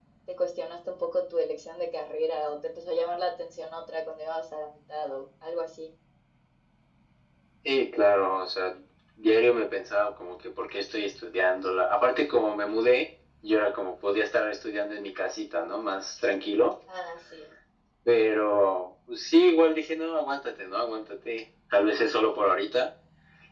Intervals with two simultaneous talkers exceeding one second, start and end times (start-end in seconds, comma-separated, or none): none